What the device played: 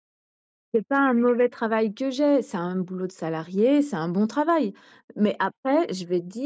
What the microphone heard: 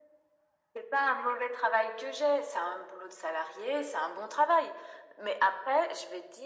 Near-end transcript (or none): none